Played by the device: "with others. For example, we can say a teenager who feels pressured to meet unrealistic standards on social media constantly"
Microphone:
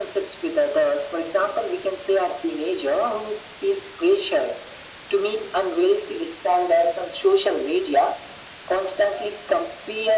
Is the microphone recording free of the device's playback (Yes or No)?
No